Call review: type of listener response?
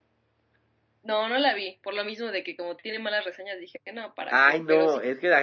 taking over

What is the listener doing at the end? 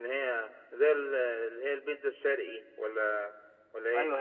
taking over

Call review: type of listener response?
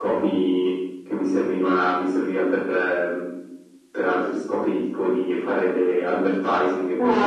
taking over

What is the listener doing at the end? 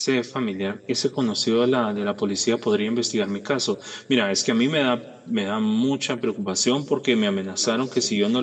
listening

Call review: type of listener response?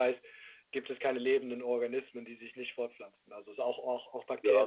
taking over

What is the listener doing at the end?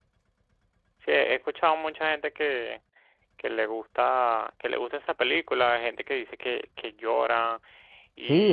taking over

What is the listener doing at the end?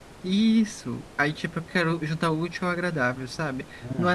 listening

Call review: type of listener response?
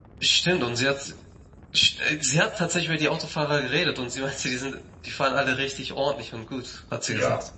taking over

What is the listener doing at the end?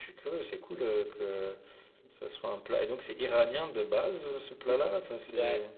taking over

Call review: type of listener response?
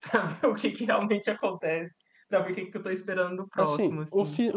taking over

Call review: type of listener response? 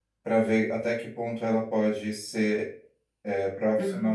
listening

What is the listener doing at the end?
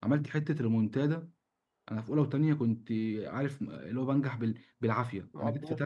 listening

